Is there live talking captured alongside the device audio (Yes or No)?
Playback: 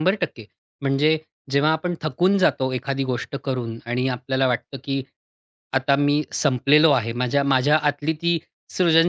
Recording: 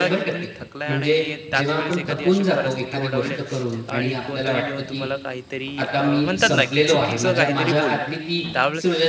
Yes